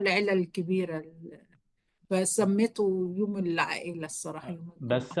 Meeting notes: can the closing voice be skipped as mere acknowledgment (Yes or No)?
No